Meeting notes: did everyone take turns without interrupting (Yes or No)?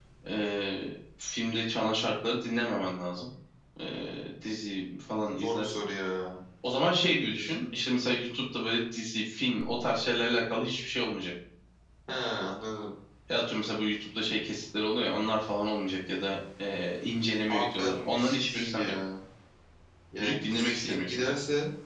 No